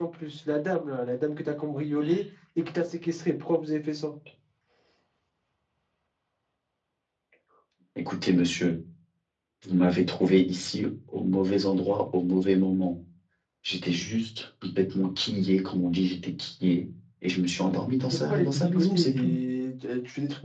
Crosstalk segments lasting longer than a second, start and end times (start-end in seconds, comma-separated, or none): 18.1-19.3